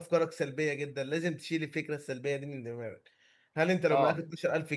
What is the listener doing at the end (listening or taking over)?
listening